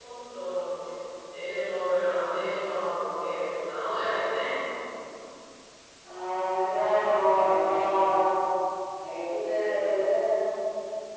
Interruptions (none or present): none